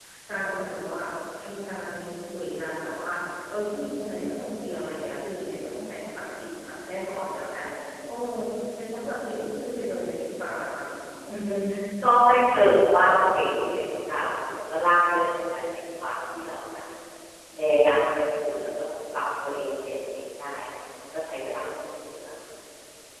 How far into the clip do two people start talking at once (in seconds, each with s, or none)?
none